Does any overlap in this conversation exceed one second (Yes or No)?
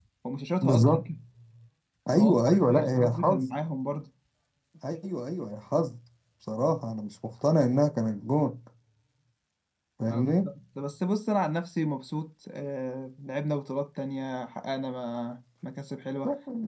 Yes